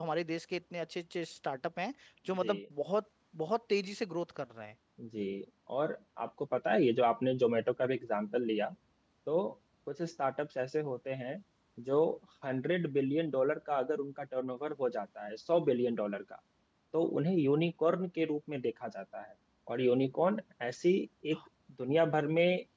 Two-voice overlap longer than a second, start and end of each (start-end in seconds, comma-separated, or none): none